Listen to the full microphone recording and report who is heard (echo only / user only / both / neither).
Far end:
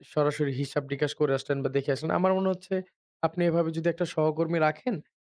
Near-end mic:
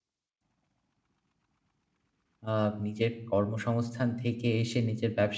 user only